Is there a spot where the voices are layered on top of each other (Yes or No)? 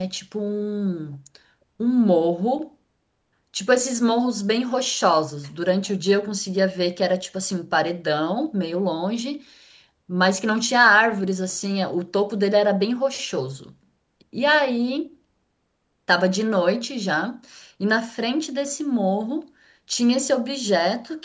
No